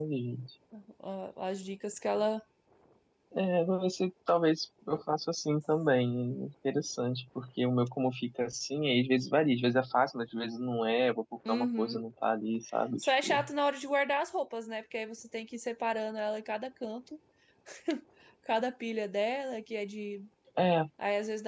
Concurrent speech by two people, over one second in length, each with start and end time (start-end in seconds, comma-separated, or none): none